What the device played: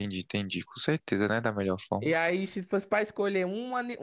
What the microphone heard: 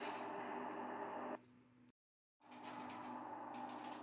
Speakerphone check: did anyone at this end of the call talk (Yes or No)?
No